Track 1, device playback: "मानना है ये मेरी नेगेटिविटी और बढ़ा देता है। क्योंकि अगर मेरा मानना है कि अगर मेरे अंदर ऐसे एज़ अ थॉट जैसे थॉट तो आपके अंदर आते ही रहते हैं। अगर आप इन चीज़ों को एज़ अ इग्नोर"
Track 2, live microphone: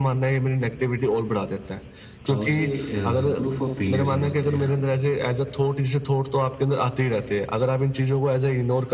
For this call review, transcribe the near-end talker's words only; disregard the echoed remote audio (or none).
अ, उसे अ, प्रूफ ऑफ फेलियर समझते हैं आप?